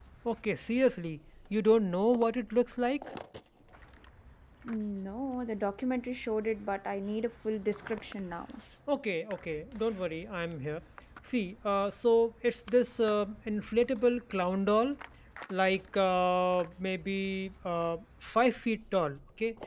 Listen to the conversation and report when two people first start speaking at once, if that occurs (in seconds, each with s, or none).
none